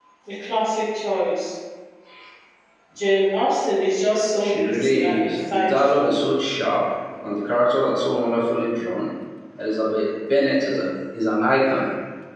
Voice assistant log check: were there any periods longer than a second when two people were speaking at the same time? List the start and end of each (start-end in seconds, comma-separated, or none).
4.4-6.2